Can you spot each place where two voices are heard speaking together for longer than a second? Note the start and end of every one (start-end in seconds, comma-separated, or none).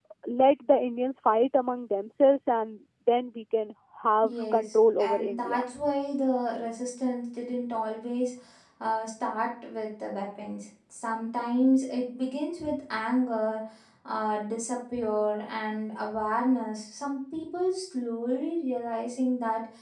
4.2-5.6